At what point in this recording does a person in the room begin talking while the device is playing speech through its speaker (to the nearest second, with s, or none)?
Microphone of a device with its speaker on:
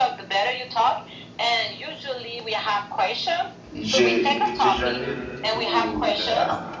4 s